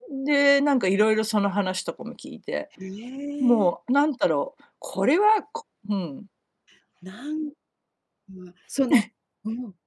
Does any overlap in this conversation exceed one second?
No

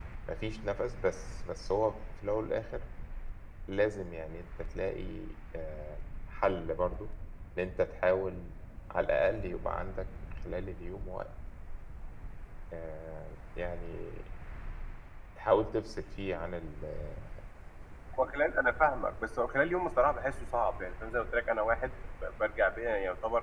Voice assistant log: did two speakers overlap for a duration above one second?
No

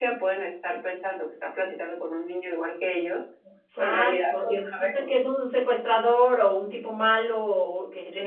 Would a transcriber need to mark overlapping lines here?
Yes, from 3.8 s

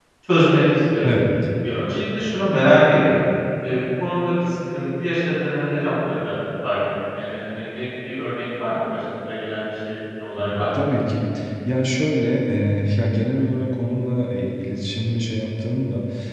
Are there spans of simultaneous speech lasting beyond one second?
No

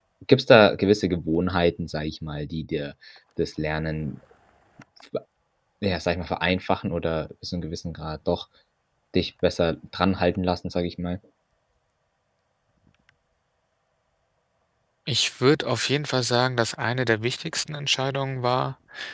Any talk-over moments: No

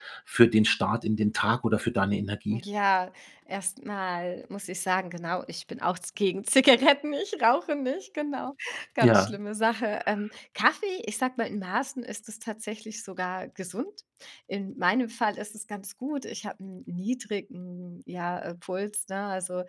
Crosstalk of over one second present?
No

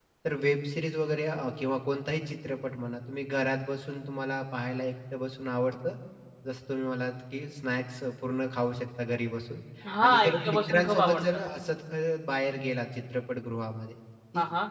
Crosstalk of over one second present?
Yes, from 10.0 s

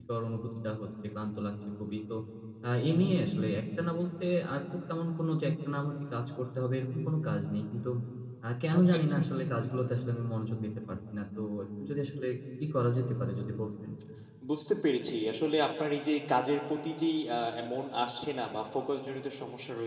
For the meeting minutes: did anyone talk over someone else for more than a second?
No

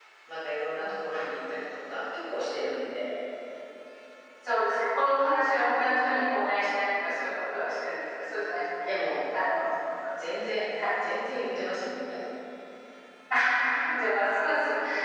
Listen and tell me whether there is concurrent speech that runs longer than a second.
No

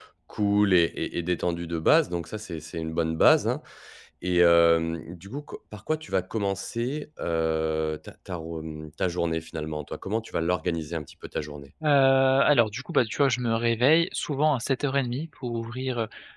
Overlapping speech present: No

